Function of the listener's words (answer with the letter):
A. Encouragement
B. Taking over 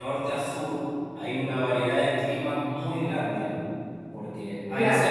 A